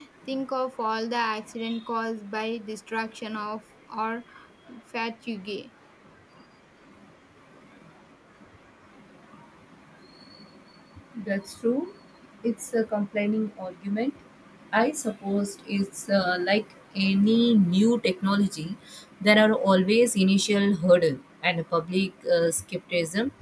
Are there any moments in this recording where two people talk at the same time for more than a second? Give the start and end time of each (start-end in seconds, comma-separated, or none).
none